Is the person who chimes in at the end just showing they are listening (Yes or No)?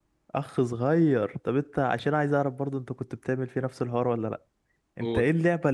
Yes